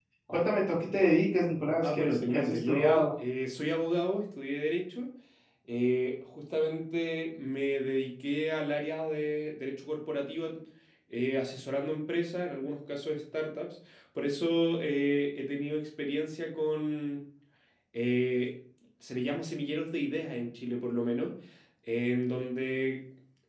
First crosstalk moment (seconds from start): 2 s

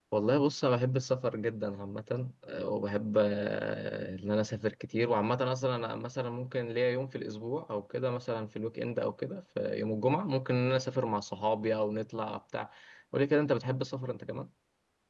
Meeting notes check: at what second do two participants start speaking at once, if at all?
none

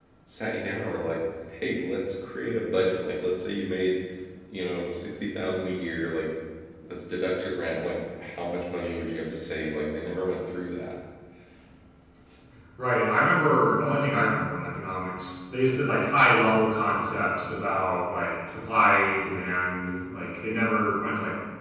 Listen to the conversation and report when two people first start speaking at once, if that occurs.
none

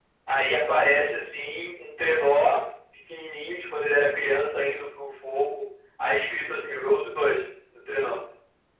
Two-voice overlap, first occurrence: none

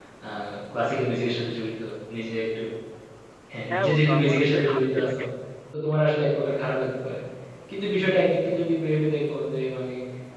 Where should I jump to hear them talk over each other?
4 s

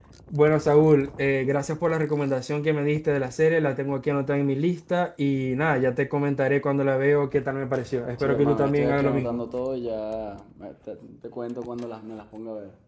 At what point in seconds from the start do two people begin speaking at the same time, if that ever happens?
8 s

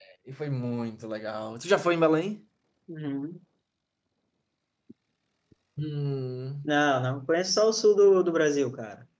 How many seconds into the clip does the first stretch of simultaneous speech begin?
none

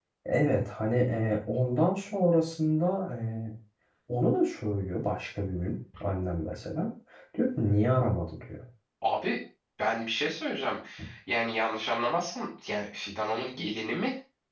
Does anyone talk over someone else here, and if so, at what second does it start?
none

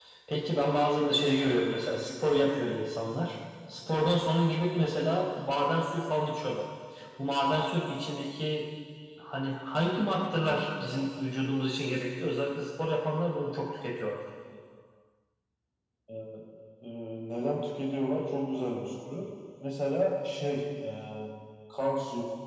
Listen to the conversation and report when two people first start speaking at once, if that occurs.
none

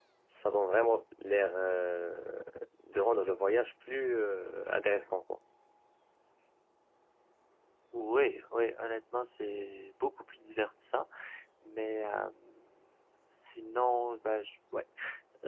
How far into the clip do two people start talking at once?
none

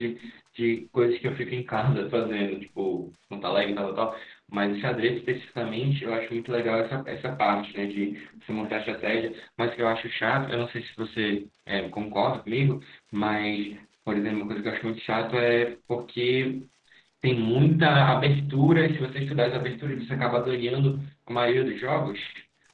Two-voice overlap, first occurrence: none

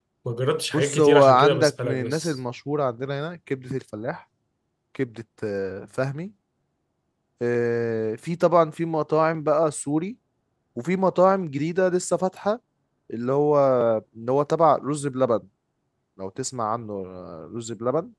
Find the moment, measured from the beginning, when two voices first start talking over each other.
1 s

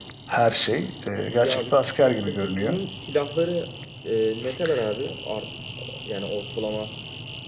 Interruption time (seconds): 1 s

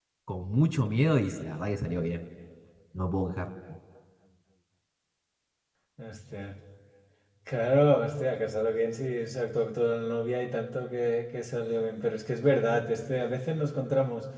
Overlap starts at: none

